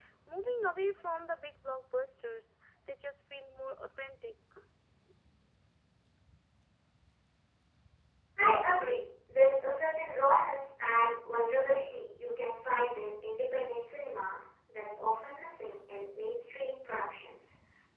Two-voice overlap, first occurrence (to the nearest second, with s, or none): none